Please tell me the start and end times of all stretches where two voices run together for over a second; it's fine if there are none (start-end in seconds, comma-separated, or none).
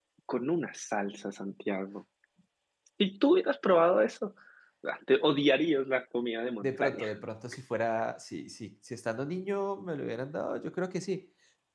none